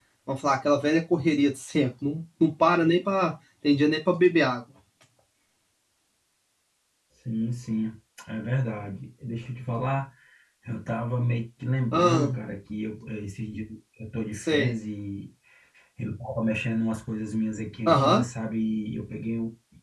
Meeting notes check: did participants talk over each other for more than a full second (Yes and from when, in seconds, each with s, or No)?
No